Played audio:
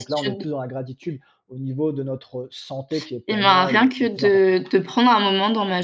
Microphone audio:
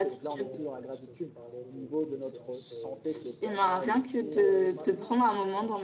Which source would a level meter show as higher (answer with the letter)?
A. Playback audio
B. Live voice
A